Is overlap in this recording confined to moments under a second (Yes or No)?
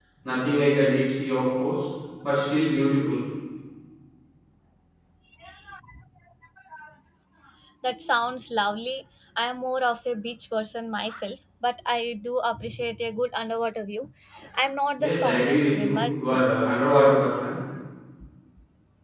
No